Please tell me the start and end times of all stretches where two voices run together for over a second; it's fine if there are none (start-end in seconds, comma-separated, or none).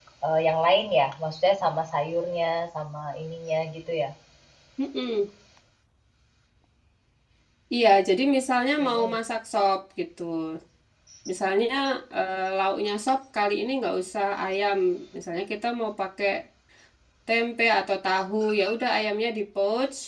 none